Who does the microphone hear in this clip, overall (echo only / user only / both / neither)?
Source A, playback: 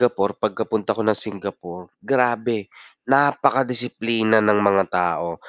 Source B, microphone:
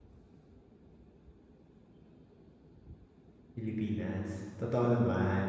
user only